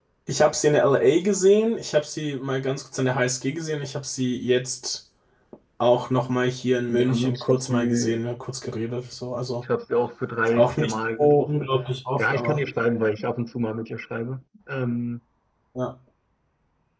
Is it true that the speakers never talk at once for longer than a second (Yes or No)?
No